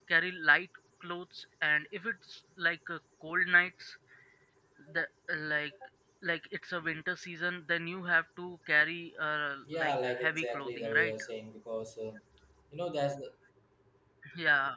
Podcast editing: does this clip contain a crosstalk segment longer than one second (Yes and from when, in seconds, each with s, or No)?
Yes, from 9.7 s